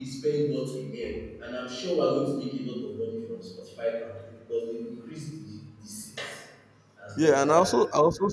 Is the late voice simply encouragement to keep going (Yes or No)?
No